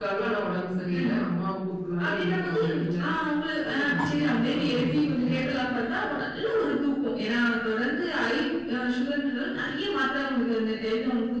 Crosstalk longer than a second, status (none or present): present